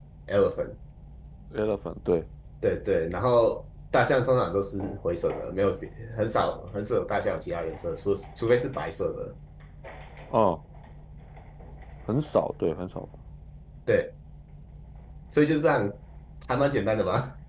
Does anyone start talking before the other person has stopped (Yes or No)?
No